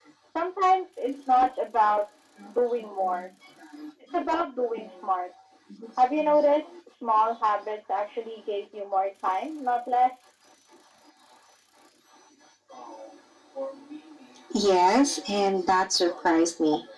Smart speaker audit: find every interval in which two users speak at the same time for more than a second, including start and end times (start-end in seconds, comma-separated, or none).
none